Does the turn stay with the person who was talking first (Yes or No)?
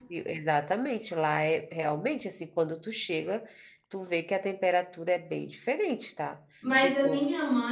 No